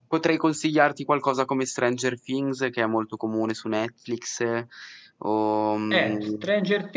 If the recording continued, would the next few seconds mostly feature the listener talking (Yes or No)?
Yes